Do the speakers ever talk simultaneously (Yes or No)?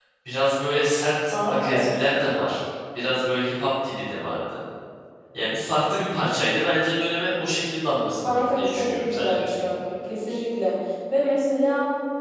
Yes